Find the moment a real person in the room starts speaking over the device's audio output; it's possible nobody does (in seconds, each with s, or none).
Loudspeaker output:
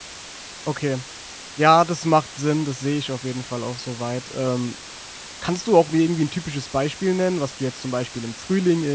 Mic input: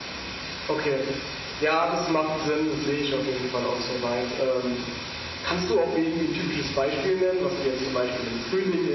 none